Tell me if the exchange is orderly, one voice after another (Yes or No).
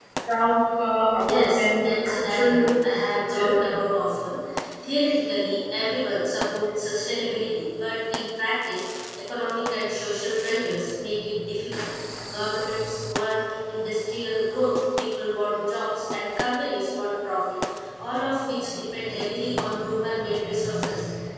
No